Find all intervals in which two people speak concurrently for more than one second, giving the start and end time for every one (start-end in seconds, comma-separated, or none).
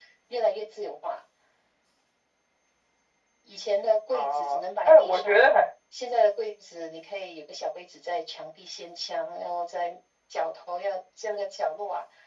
4.1-5.5